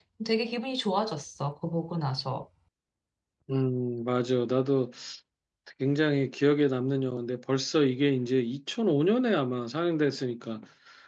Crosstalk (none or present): none